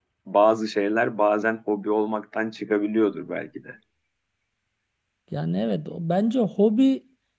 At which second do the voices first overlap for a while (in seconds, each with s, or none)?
none